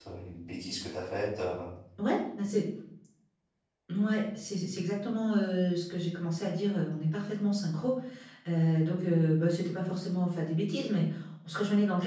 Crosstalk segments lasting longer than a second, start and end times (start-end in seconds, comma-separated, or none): none